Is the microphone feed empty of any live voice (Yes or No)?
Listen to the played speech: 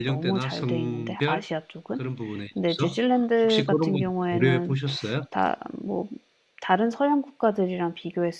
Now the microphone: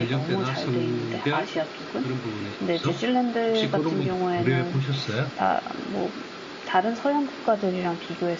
Yes